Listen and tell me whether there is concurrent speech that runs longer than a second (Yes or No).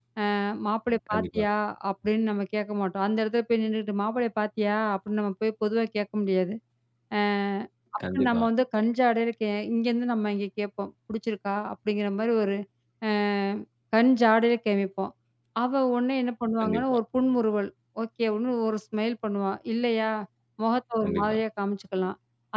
No